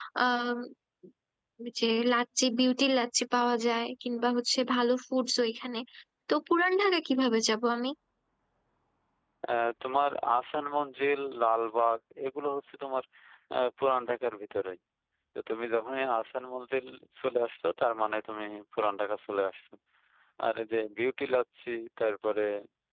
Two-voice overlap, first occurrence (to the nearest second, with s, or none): none